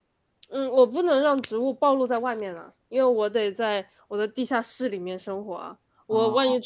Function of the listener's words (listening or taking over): listening